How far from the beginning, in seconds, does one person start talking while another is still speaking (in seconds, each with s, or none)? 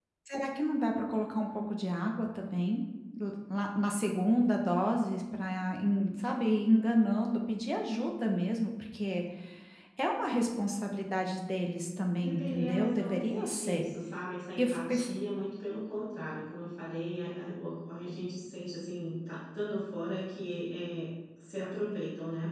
12.1 s